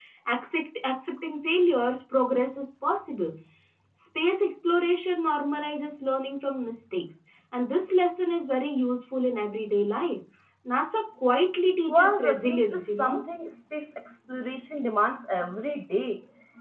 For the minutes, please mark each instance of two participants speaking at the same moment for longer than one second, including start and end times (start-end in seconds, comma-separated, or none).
11.9-13.2